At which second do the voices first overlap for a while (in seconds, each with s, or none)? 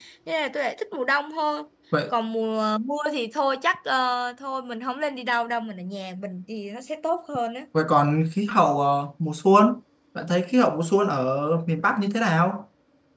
none